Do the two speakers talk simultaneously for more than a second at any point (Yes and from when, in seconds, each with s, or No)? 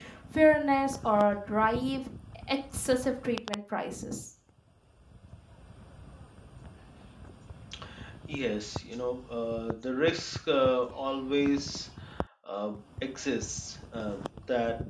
No